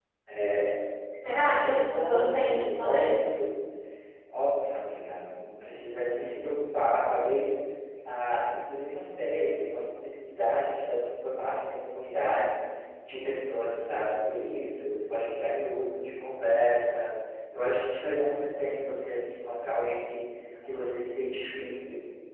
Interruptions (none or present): present